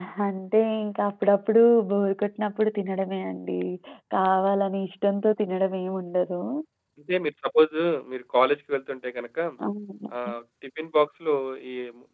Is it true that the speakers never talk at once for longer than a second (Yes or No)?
Yes